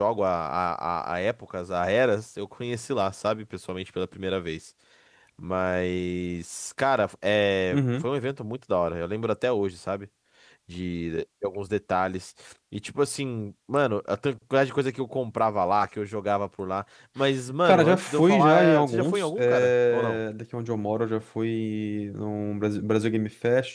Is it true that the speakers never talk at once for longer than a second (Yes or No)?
No